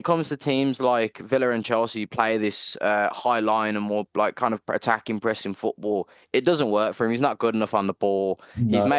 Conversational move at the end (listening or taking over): listening